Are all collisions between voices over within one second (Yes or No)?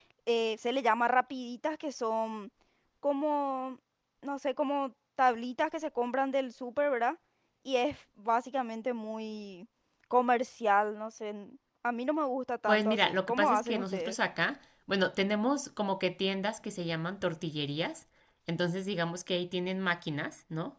No